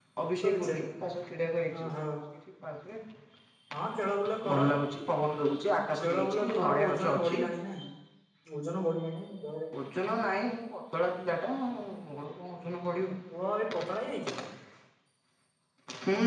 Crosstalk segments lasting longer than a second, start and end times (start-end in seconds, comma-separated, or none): 6.0-7.4